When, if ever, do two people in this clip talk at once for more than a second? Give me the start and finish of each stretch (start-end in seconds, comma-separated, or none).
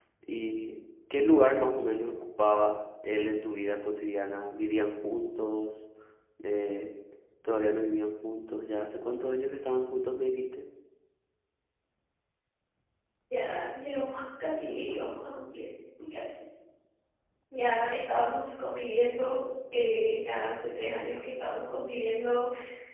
none